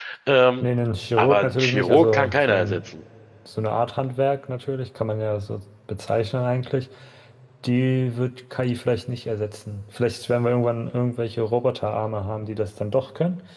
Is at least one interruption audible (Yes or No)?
Yes